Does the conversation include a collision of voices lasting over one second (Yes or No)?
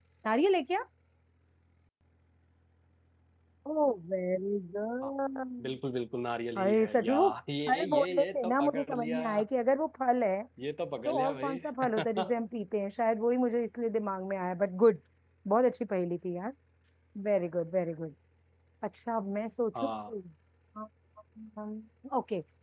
Yes